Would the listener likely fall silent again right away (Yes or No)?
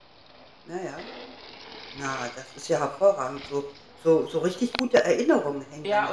No